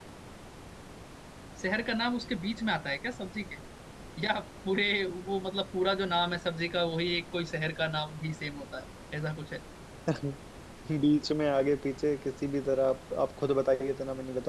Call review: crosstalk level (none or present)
none